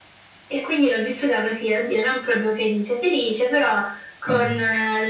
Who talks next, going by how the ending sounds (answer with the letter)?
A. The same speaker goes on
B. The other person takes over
A